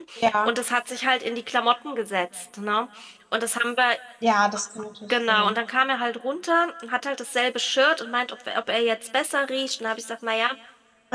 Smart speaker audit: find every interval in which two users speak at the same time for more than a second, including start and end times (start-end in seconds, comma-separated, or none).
none